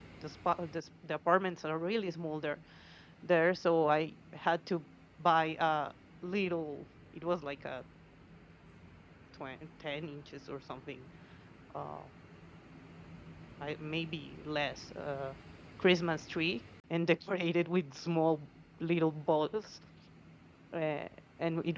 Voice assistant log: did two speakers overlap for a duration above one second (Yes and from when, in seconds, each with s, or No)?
No